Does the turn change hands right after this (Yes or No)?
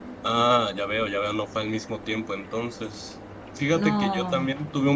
No